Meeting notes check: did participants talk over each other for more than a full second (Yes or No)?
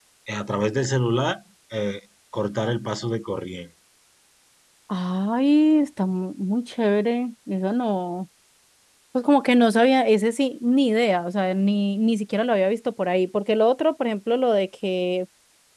No